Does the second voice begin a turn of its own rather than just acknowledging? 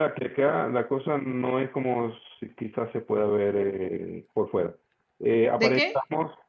No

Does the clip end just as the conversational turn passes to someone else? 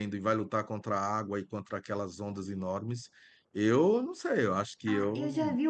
Yes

